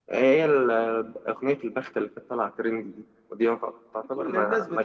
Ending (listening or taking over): taking over